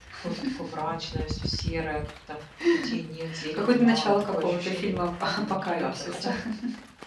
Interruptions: present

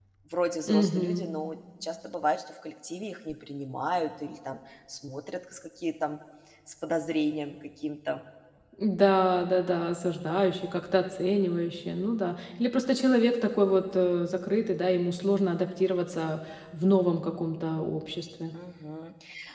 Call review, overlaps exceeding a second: none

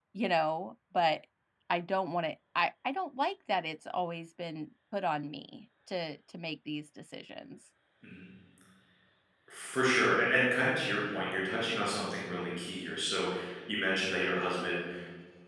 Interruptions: none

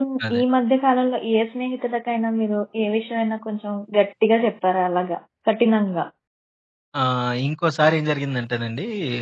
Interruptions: none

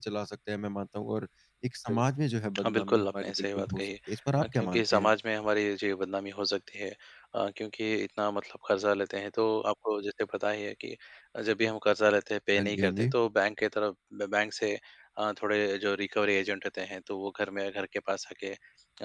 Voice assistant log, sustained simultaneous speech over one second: present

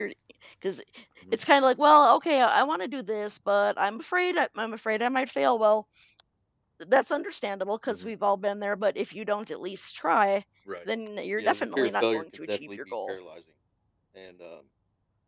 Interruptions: present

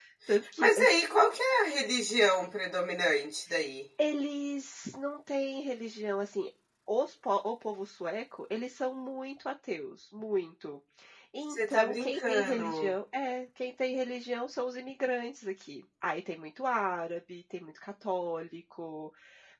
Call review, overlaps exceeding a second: present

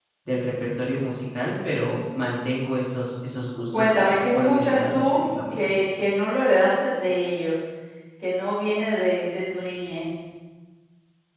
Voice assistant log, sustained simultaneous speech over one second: present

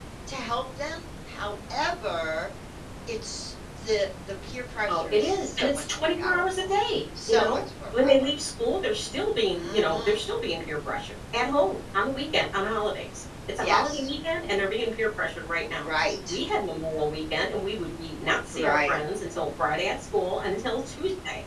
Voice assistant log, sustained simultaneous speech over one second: present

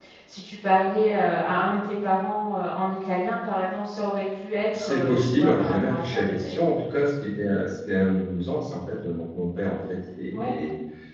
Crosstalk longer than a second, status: present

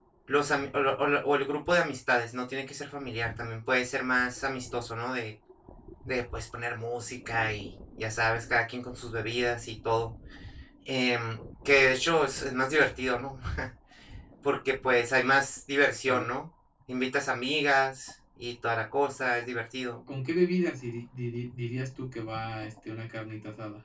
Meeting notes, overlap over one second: none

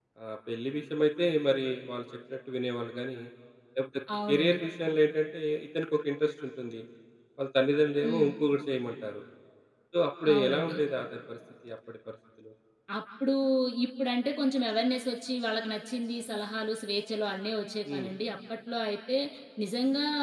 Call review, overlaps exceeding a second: none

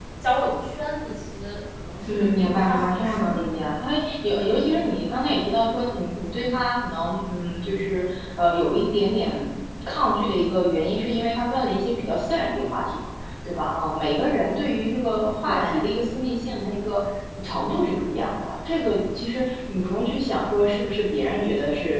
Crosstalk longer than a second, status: present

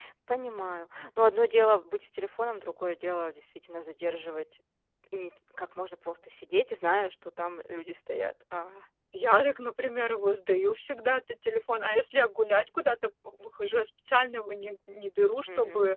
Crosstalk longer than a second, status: none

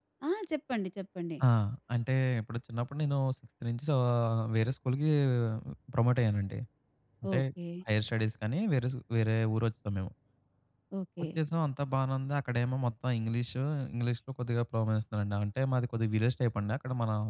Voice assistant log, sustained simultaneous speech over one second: none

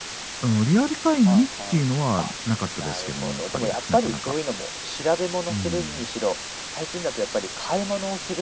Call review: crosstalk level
present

